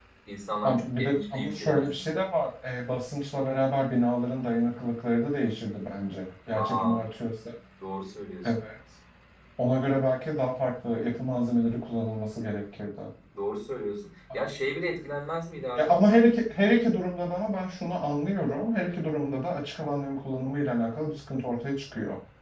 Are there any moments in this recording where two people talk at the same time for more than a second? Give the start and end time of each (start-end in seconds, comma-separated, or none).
0.6-2.2